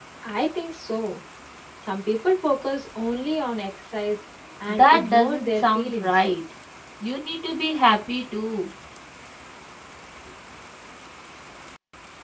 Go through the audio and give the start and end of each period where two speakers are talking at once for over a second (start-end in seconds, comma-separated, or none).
4.7-6.2